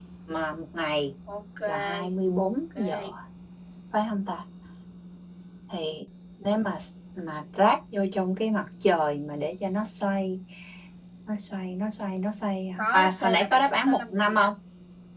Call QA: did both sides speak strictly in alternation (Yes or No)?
No